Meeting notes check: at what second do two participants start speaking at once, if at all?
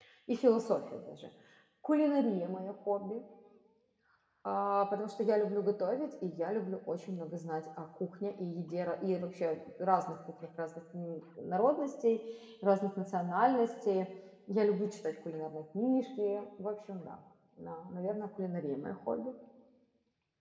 none

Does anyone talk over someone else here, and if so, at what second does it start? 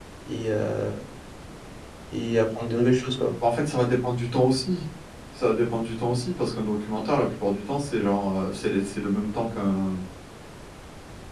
none

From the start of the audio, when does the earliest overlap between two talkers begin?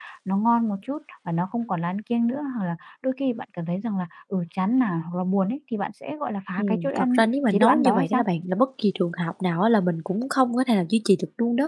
6.6 s

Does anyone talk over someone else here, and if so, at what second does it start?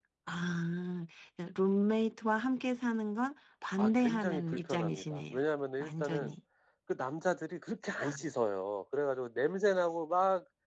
3.8 s

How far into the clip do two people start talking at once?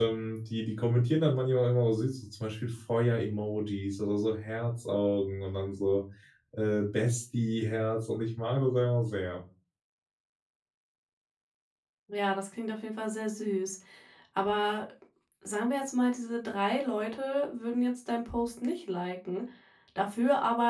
none

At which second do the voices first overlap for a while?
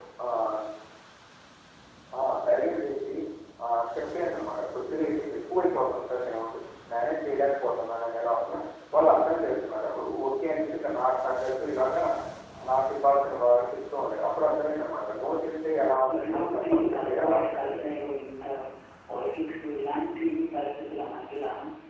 16.1 s

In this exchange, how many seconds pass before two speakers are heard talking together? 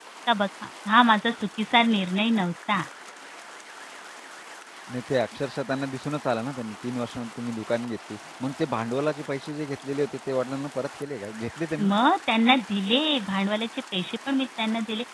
none

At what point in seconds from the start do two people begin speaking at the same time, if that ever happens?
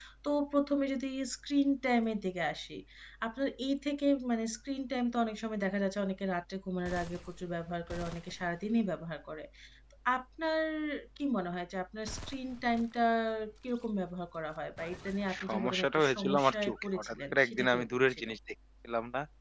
15.3 s

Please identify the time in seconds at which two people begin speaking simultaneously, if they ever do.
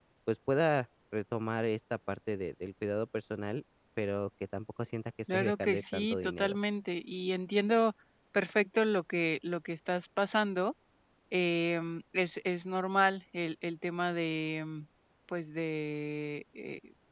5.3 s

